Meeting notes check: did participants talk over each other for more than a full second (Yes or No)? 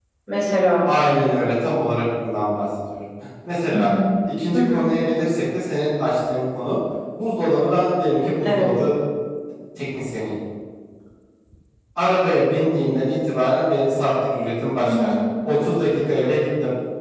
No